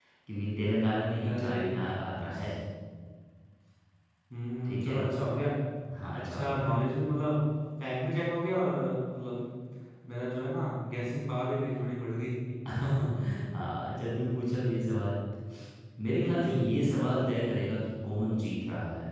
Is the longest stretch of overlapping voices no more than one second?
No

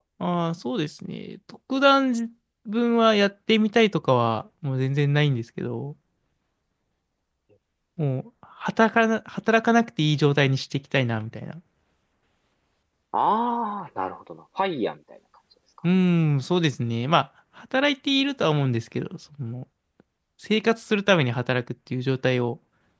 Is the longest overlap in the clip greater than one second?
No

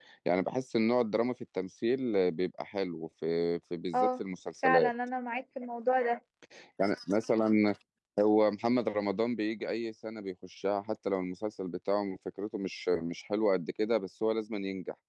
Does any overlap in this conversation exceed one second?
No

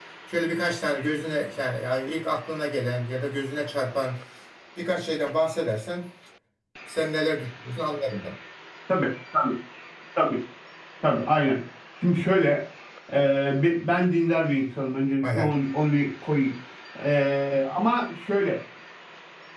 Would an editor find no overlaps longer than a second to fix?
Yes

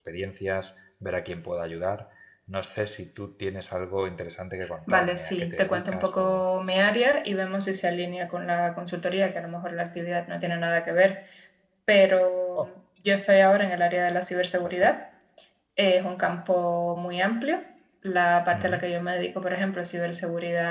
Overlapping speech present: Yes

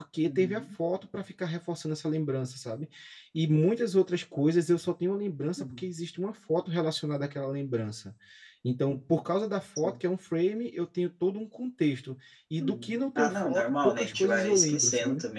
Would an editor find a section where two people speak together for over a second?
Yes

